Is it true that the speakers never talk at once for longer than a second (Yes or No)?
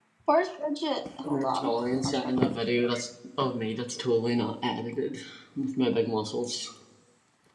No